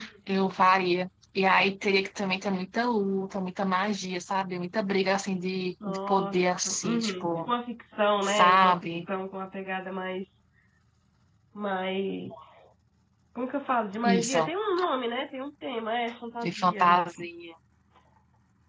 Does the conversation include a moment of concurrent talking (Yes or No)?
Yes